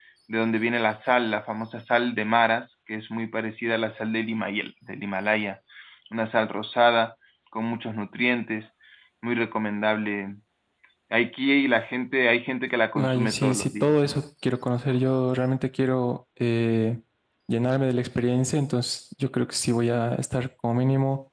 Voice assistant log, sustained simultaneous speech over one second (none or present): present